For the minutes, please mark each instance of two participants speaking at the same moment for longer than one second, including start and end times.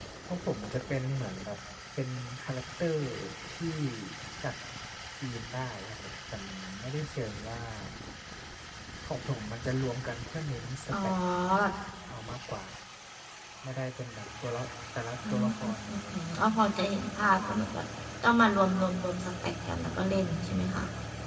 15.3-16.8

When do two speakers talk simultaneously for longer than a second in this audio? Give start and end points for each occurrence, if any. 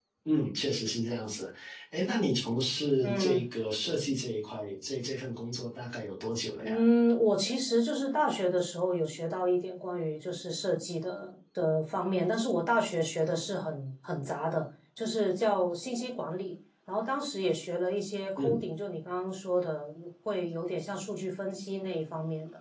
none

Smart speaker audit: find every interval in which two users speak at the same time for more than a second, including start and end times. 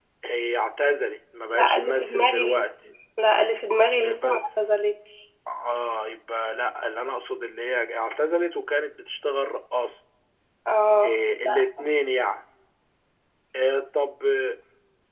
1.5-2.7

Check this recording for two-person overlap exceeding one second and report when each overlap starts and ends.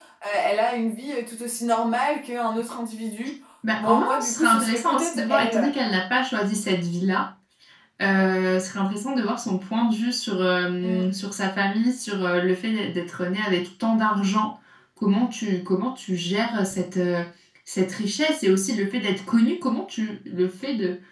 3.8-5.7

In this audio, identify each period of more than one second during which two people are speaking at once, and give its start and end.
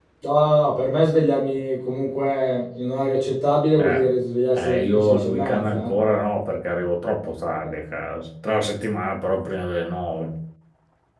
4.5-6.0

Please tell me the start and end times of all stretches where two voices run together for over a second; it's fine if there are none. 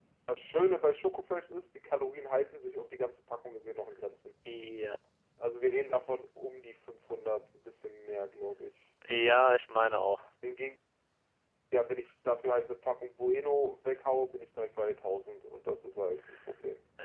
none

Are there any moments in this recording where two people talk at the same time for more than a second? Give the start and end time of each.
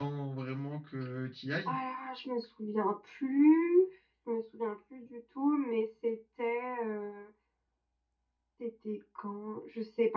none

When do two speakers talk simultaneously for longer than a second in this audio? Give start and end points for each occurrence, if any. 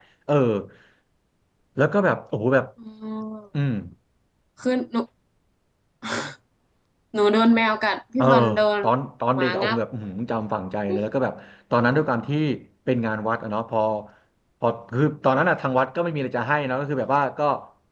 none

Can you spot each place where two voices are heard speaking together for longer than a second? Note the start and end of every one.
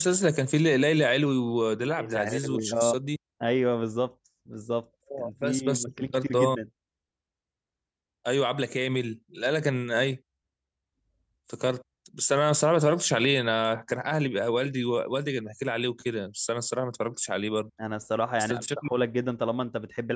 1.8-3.0, 5.2-6.5

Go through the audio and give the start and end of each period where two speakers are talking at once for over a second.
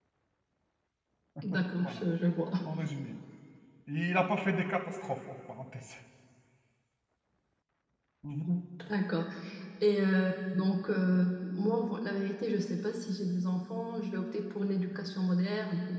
none

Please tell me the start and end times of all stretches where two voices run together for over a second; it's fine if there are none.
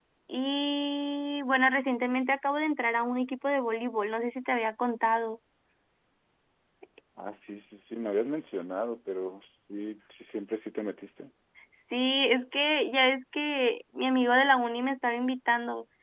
none

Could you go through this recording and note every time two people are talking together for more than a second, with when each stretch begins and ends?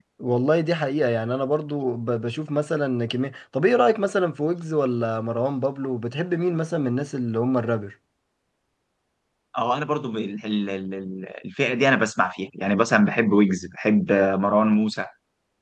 none

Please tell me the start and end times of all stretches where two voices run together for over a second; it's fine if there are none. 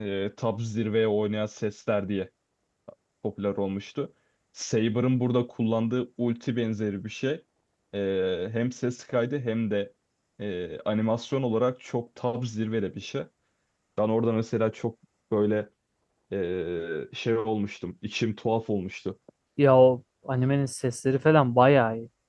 none

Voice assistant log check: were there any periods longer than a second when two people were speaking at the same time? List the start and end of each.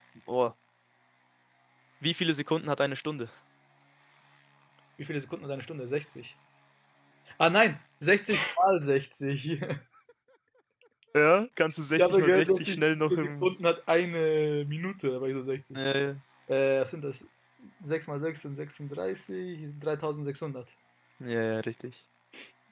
11.9-13.5

